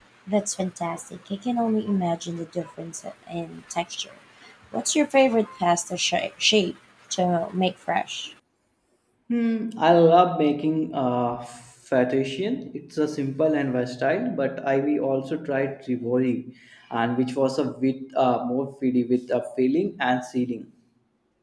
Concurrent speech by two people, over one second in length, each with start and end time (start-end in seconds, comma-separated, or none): none